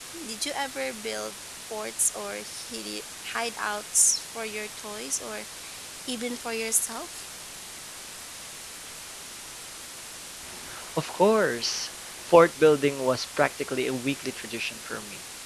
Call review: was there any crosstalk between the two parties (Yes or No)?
No